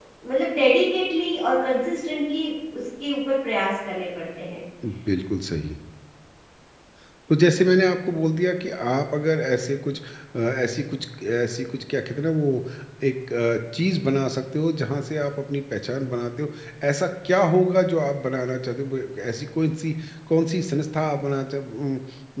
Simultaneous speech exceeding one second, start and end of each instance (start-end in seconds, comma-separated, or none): none